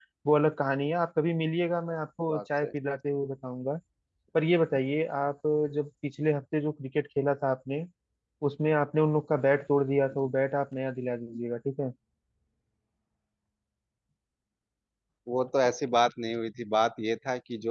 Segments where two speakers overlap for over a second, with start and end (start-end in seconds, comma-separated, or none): none